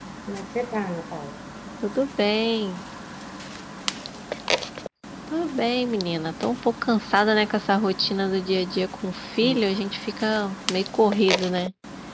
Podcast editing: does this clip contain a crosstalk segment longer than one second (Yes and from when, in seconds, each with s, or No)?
No